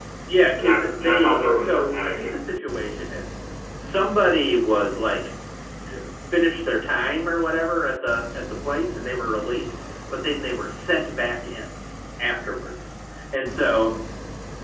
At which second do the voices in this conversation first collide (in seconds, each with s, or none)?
0.6 s